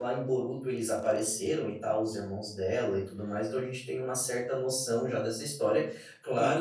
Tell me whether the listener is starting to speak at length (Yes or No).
No